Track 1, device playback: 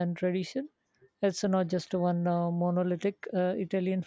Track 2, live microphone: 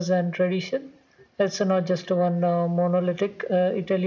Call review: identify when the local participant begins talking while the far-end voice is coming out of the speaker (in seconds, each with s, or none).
none